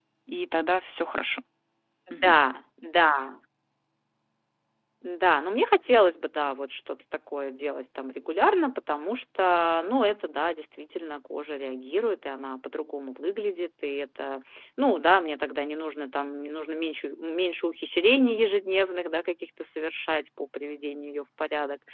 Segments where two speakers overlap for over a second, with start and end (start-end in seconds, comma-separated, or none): none